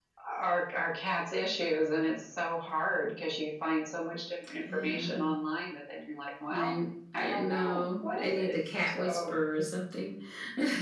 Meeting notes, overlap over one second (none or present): present